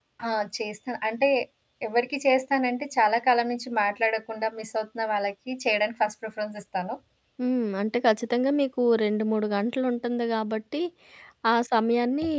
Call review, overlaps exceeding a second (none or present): none